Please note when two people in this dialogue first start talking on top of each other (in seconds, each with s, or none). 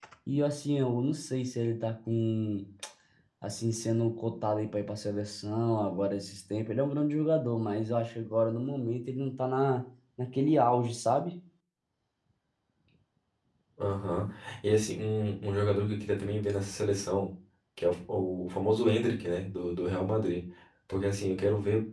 none